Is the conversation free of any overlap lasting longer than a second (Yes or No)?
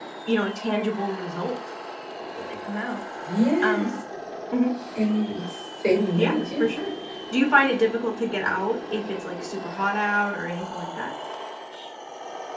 Yes